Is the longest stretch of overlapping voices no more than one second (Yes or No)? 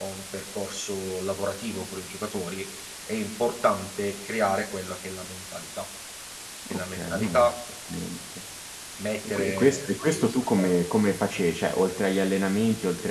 No